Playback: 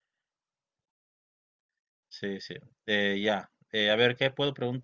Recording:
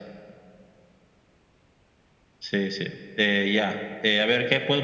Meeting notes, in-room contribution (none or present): none